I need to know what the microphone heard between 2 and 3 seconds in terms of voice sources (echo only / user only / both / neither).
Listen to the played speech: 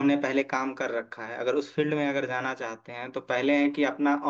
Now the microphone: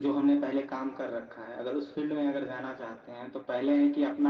echo only